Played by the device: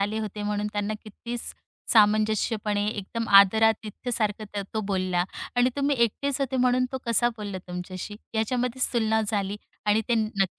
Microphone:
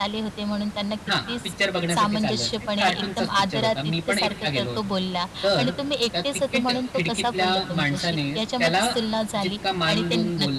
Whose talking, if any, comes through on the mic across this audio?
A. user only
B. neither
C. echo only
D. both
D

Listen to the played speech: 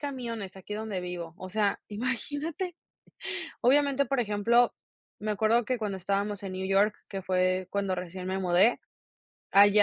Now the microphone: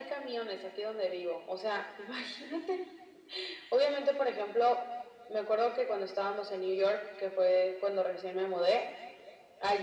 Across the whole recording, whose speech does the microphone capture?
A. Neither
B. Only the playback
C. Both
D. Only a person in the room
B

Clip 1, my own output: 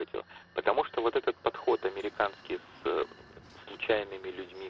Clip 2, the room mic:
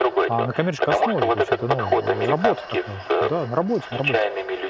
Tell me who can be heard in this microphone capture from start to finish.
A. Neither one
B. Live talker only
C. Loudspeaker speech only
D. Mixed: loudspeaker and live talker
D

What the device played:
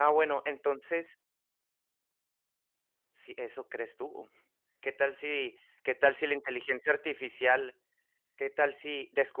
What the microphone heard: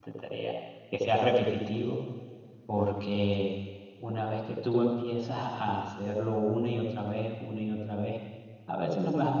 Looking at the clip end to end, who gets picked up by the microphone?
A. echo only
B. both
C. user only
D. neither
C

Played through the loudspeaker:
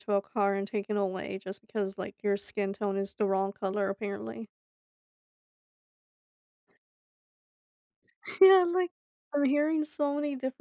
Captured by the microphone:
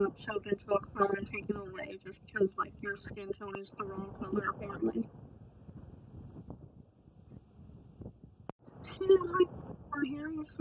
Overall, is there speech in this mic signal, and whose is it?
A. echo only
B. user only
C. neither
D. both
A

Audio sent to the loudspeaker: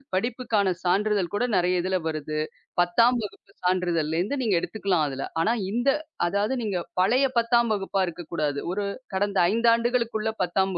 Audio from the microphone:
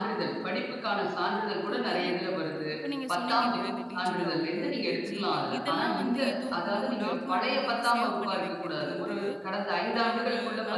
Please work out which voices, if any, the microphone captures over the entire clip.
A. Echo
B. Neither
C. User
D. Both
D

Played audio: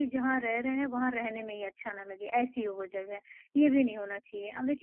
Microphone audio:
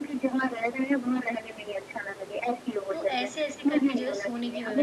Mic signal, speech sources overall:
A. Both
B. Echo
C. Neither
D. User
A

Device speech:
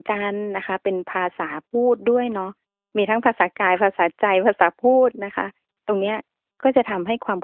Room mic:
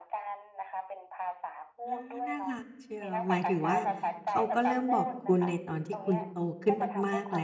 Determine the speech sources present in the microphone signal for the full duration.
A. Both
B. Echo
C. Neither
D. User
A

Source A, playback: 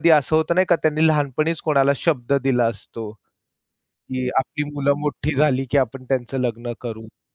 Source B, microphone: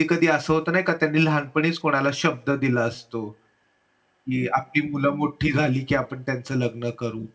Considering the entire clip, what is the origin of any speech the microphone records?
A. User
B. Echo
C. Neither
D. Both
B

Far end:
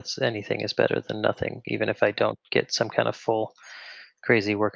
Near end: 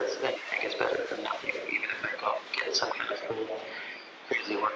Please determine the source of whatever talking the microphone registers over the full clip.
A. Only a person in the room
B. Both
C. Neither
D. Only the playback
D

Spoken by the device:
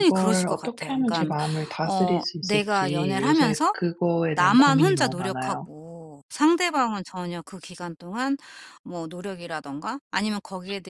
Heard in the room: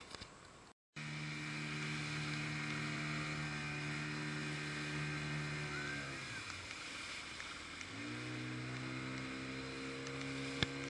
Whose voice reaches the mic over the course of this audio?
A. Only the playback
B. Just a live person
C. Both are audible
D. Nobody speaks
D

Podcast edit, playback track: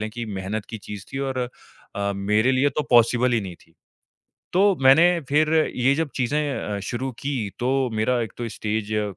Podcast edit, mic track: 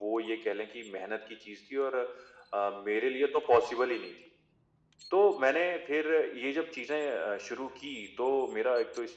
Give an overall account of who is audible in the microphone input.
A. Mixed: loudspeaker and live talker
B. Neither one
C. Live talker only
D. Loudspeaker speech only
D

